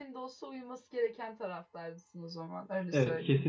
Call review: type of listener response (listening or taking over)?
taking over